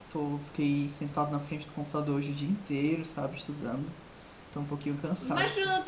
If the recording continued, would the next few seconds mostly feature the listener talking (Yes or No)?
Yes